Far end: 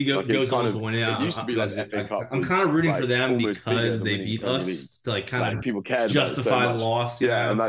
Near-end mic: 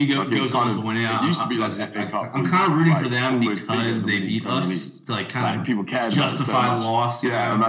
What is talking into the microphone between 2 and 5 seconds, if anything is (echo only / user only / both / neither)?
echo only